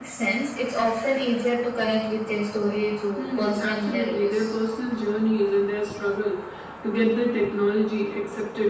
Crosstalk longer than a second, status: present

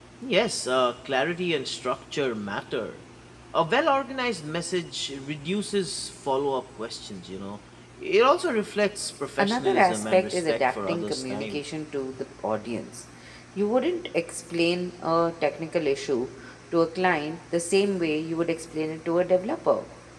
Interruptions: present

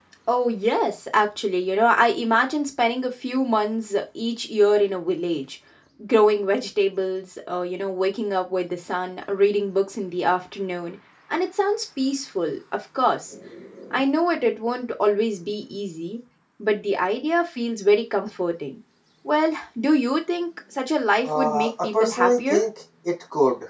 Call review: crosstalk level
present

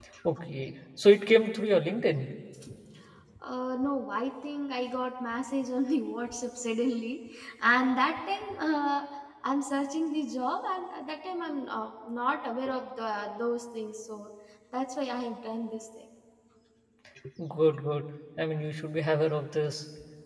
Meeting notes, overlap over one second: none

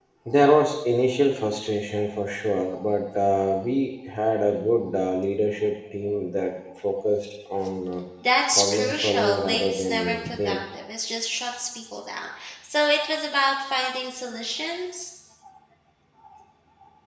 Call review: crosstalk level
present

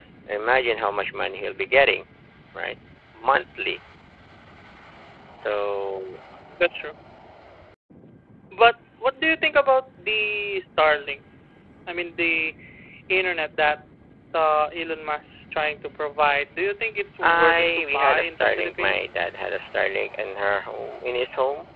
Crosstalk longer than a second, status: present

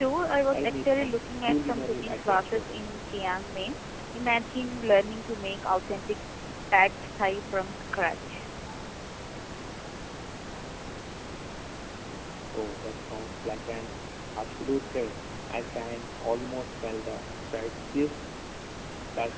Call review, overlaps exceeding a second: present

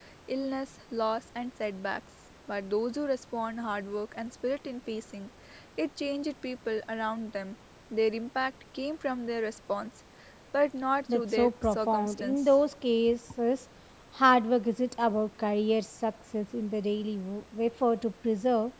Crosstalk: present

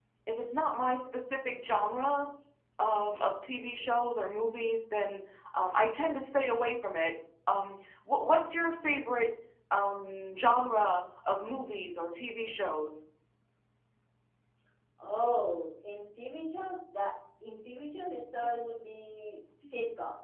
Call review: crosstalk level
none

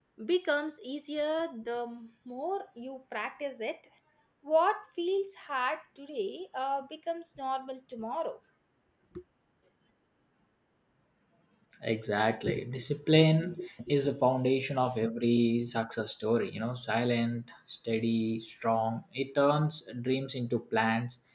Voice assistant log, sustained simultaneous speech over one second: none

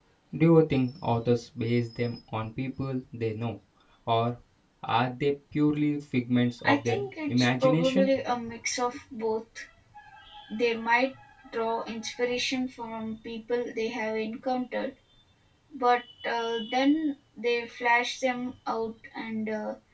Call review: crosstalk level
present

